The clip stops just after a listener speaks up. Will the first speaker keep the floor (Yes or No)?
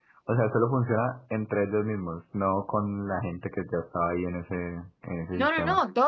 No